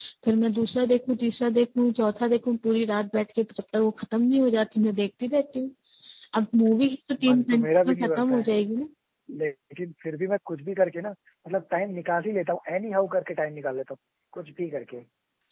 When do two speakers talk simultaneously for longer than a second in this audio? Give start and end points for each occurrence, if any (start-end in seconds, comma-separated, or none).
7.3-8.5